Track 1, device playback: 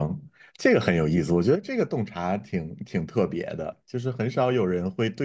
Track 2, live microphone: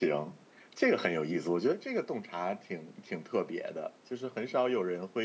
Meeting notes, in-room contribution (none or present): none